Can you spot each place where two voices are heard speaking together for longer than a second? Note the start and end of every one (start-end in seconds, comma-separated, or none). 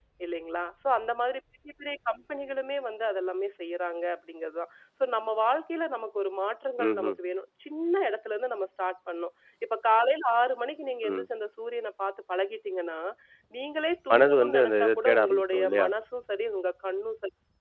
14.1-15.9